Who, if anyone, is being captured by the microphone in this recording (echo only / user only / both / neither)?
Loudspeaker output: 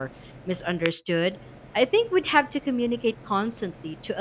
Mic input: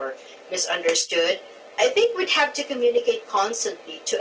echo only